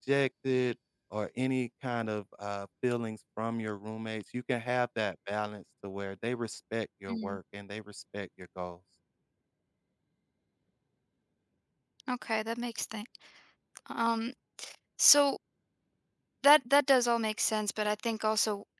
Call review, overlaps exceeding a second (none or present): none